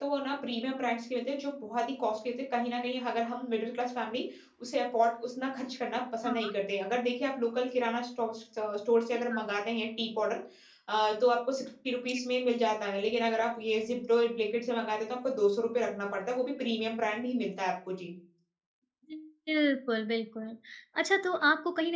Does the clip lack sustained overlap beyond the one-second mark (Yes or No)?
Yes